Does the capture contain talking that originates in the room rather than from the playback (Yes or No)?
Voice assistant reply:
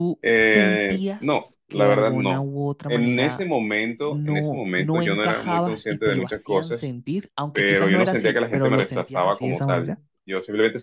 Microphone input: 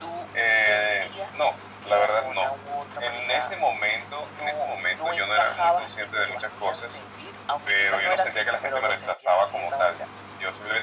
No